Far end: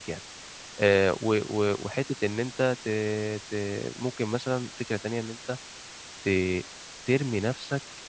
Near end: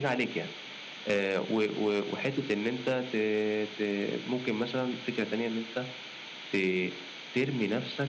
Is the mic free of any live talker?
Yes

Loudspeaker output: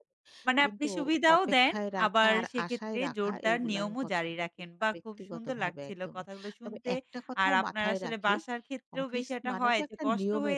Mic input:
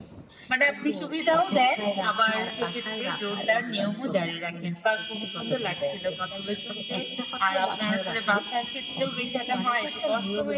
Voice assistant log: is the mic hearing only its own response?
Yes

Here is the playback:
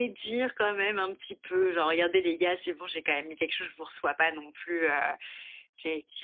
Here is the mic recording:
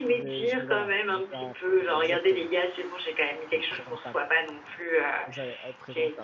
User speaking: Yes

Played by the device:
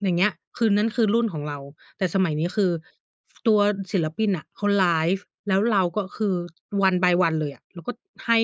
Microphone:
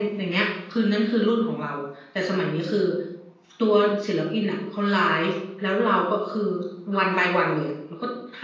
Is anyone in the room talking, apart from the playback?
No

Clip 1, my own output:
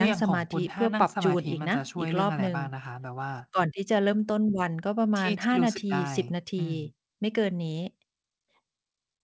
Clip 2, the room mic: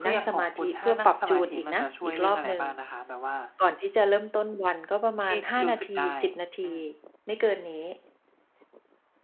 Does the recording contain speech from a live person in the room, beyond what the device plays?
No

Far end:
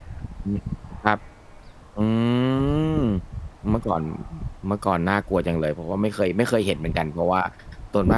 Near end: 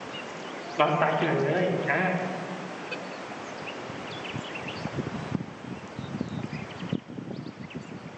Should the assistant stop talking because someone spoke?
Yes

